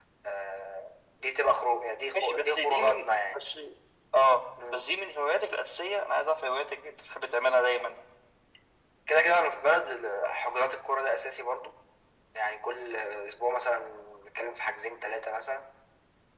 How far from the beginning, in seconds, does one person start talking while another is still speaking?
2.1 s

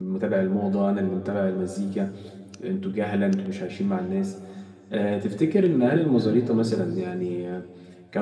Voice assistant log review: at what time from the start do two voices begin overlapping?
none

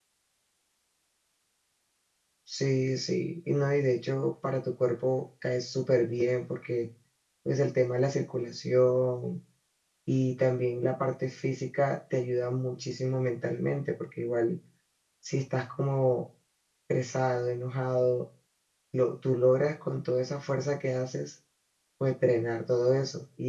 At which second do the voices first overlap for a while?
none

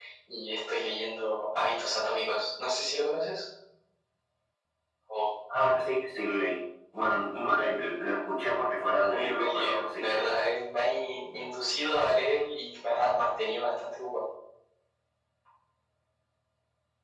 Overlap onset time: 9.0 s

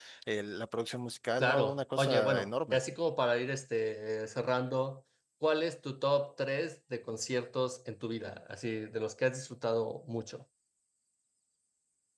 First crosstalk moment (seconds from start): 1.4 s

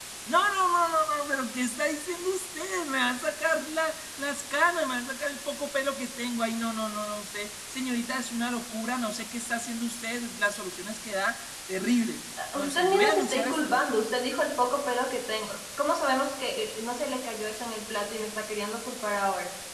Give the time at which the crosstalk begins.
12.4 s

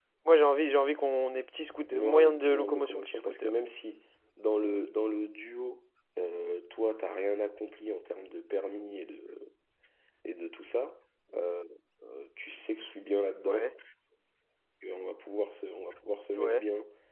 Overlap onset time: 1.9 s

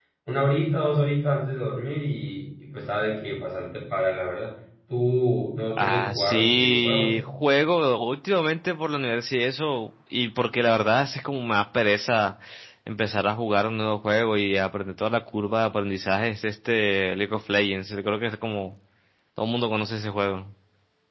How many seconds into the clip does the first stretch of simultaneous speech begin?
5.7 s

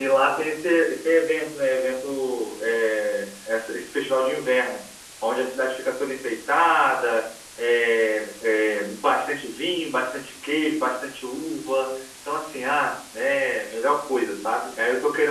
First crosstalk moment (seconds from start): none

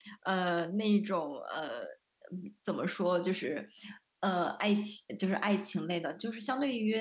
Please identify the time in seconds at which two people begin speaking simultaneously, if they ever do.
none

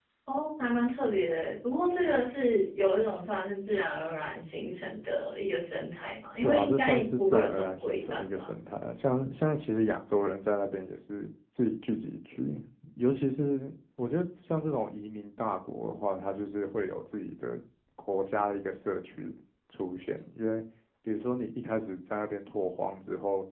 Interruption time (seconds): 6.4 s

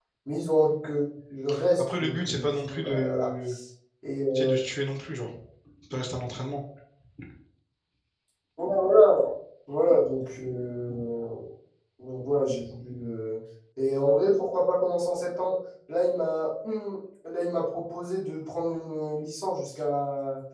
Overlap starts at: 1.8 s

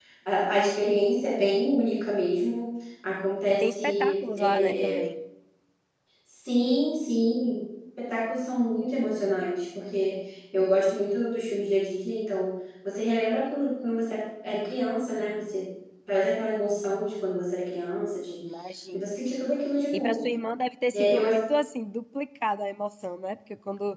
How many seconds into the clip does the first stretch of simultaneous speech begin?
3.5 s

